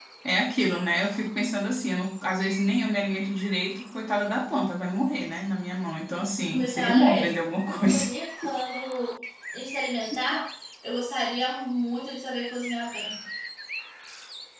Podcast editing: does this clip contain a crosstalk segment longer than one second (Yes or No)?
Yes